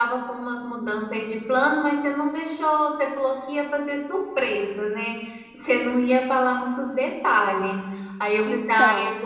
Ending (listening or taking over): listening